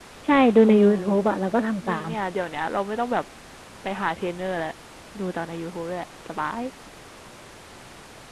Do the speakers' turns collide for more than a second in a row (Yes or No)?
No